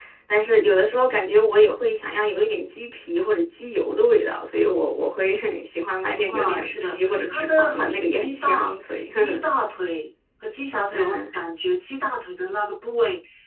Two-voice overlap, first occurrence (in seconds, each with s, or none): 6.3 s